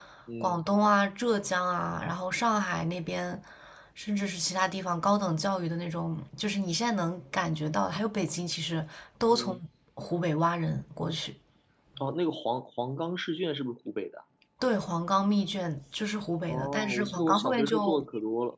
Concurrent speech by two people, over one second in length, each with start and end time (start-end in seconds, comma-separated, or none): 16.5-18.0